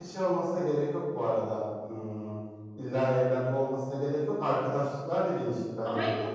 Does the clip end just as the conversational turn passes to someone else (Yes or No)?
Yes